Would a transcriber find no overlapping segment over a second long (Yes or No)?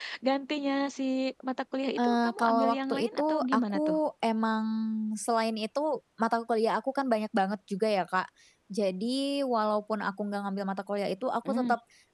No